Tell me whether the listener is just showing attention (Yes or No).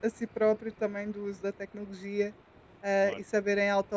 Yes